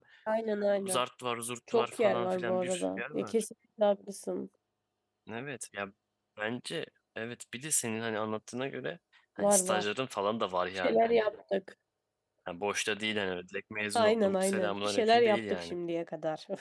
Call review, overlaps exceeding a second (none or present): present